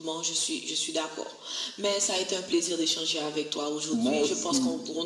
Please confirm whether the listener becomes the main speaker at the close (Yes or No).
No